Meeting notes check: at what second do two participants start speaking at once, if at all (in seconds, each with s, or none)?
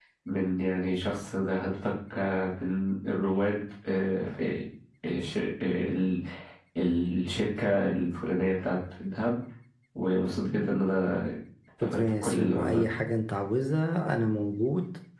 11.8 s